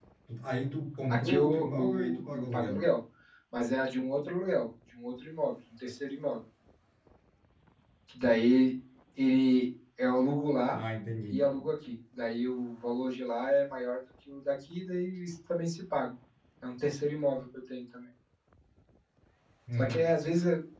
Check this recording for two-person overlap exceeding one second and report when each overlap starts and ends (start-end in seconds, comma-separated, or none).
1.1-2.9